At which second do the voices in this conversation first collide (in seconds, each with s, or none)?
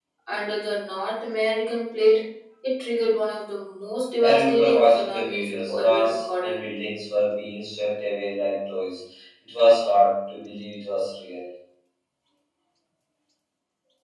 4.2 s